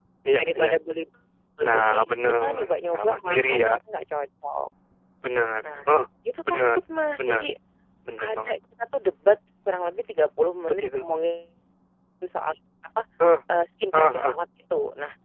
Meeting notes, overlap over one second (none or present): present